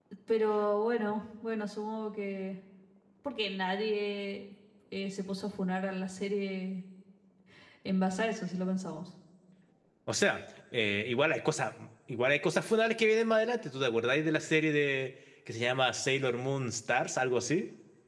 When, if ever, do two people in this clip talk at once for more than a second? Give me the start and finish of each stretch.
none

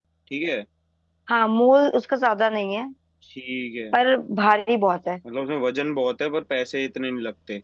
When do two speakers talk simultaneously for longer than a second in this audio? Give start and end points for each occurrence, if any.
none

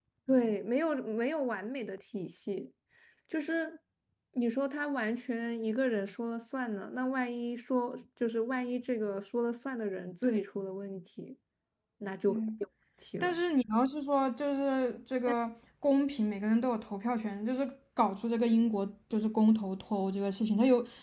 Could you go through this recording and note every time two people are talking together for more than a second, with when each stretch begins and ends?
none

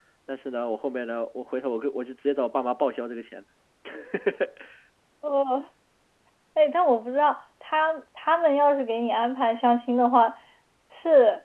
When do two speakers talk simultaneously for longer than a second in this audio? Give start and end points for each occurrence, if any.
none

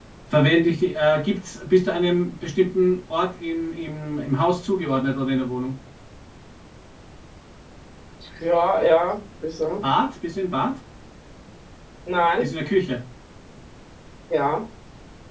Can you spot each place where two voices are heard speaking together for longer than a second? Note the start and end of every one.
none

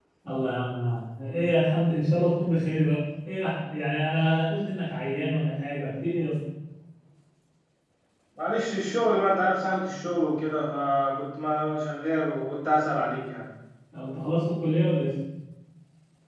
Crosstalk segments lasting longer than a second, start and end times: none

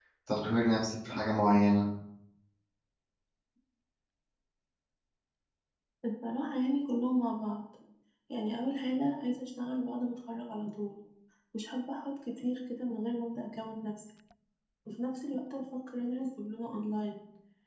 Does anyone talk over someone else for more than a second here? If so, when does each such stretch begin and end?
none

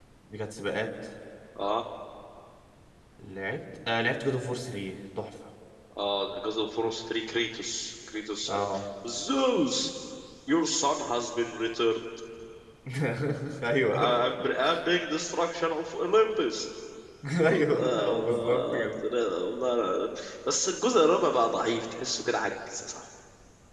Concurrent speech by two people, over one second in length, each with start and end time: 17.5-18.9

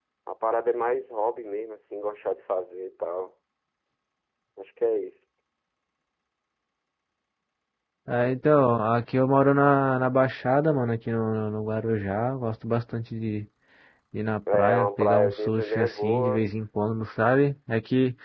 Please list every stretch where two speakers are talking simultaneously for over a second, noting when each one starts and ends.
14.5-16.5

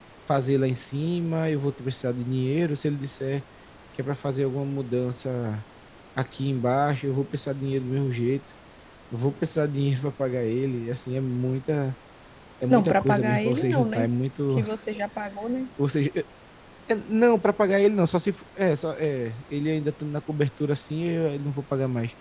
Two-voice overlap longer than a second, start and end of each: 12.7-14.1

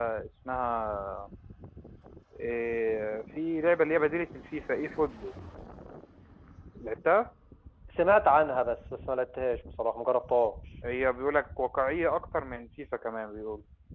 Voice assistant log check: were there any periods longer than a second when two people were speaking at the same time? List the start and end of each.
none

